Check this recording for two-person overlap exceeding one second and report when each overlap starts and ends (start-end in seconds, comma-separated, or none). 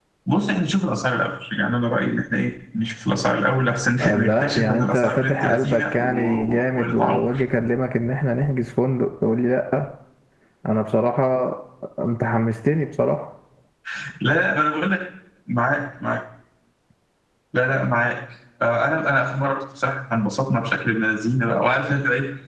4.0-7.4